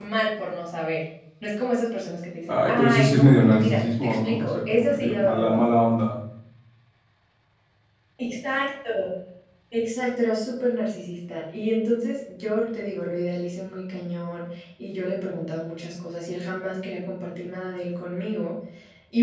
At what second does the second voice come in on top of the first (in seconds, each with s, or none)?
2.5 s